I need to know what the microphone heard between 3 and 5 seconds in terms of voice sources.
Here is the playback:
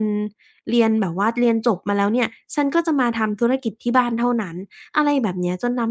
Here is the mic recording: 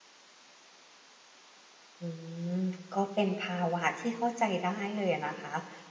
user only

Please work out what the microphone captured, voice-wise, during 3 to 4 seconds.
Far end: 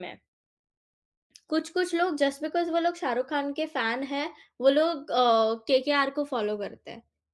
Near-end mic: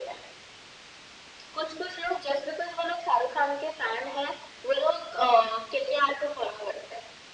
echo only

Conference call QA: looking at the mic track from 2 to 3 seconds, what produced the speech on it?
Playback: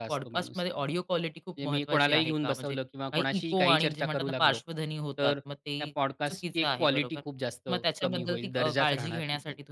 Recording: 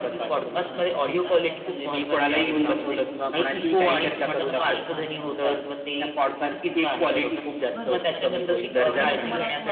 both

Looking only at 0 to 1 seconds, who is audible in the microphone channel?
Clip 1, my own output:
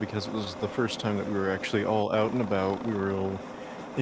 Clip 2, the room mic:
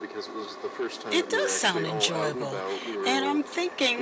echo only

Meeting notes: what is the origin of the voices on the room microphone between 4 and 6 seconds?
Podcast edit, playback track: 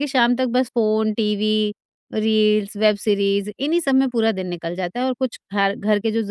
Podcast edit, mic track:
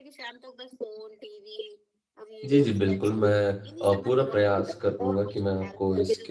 both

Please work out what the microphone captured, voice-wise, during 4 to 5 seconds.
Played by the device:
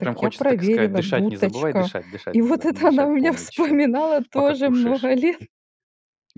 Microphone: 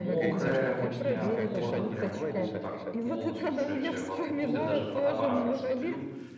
both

